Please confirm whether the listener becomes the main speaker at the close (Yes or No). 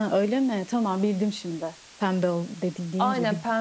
Yes